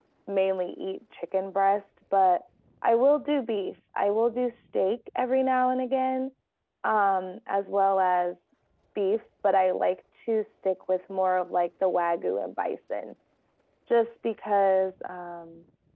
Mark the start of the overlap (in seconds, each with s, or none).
none